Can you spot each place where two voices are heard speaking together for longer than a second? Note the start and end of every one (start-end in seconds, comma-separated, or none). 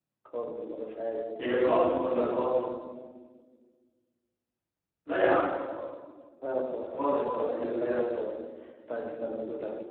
6.8-8.0